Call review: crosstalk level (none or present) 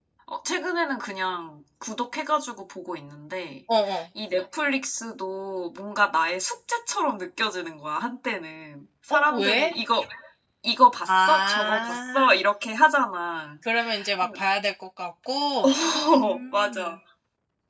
present